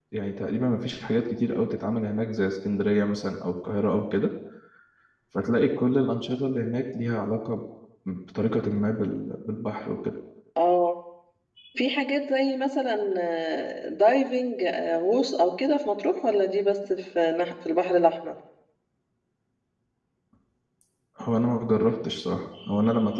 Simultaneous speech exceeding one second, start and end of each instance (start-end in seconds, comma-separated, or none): none